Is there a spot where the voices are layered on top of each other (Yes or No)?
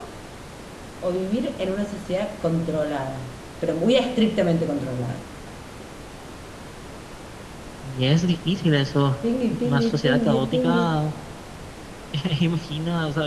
Yes